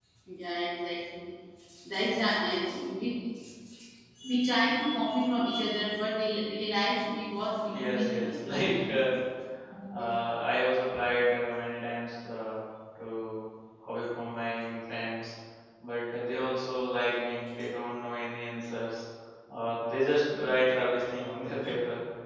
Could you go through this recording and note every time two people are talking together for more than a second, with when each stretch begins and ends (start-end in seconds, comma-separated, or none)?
7.7-9.0